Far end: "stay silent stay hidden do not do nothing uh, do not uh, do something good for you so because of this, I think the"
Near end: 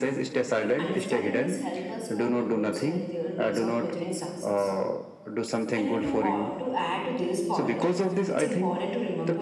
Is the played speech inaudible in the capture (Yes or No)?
No